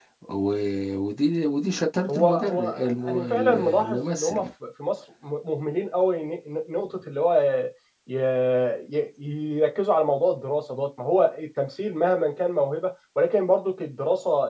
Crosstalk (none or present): present